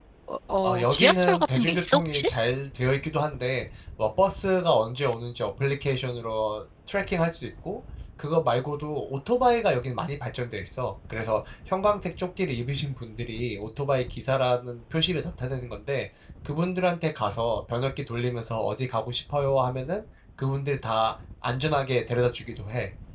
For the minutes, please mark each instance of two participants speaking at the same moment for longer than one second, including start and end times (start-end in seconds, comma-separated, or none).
0.6-2.3